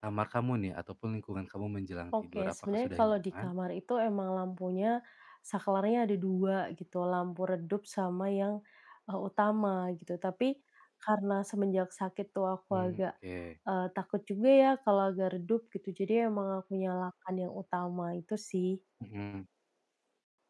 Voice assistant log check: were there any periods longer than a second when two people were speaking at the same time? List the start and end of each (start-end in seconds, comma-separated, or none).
2.1-3.5